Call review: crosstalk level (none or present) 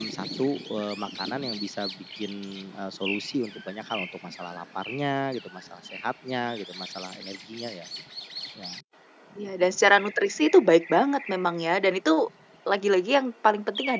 none